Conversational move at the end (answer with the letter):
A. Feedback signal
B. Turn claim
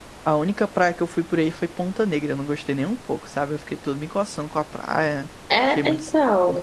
B